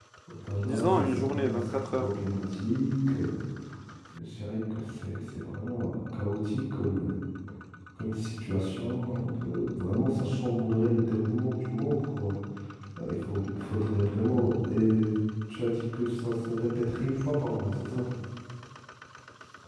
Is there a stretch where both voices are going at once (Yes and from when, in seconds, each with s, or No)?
Yes, from 0.6 s